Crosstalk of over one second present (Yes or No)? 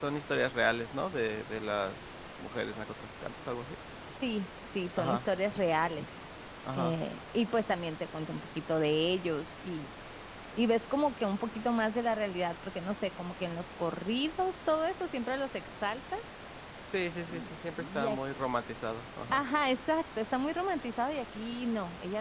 No